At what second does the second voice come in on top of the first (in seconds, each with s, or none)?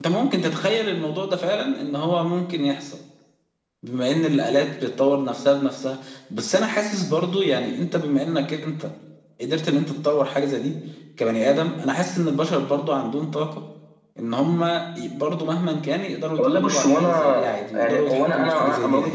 16.4 s